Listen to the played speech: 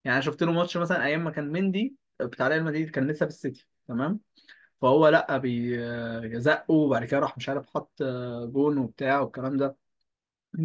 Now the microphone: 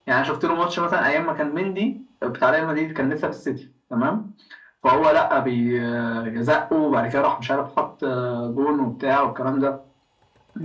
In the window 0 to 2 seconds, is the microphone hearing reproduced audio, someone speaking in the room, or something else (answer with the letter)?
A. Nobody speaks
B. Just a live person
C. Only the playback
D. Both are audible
C